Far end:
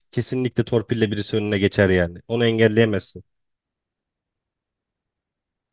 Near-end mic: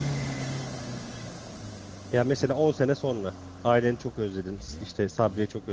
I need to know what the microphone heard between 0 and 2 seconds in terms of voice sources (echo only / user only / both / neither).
neither